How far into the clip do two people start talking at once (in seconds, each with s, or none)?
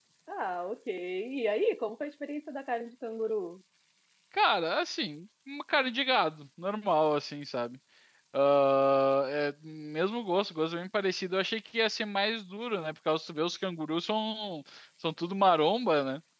none